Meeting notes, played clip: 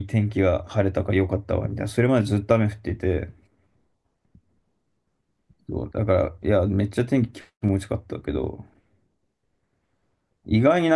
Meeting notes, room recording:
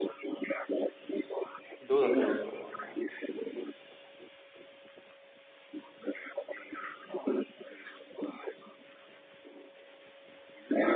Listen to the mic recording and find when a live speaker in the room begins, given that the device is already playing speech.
1.8 s

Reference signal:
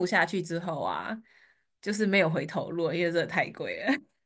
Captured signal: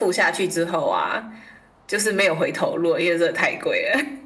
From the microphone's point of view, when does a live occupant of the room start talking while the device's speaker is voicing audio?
none

